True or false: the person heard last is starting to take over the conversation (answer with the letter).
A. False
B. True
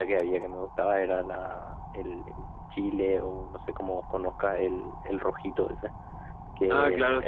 B